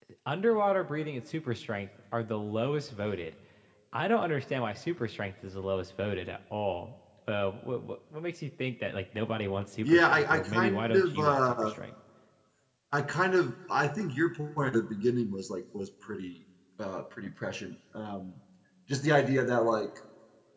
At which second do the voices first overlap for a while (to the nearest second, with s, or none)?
10 s